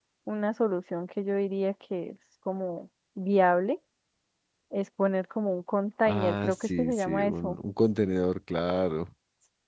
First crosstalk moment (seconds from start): 6.1 s

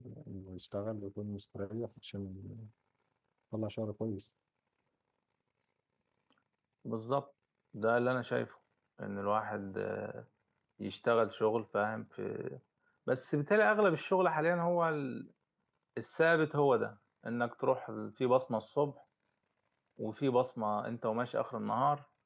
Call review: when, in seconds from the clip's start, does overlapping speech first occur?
none

